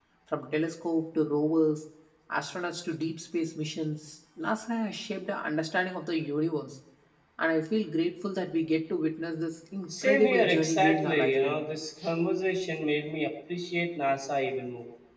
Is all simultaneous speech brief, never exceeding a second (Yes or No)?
No